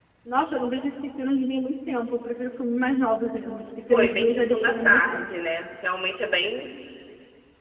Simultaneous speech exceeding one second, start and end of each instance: 3.9-5.3

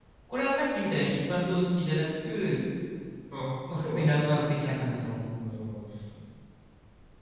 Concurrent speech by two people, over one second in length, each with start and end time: 3.7-5.0

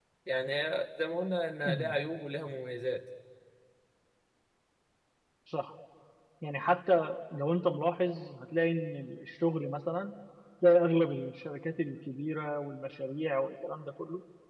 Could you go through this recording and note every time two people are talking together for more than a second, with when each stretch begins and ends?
none

